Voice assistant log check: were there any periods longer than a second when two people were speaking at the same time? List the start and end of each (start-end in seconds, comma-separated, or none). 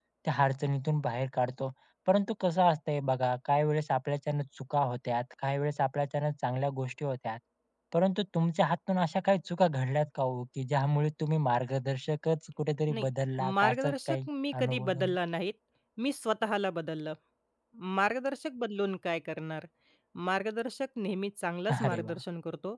13.6-15.2